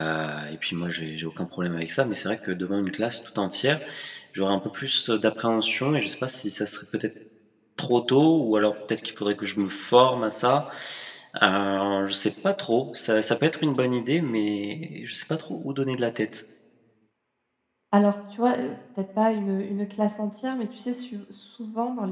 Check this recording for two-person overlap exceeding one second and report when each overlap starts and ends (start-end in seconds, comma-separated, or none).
none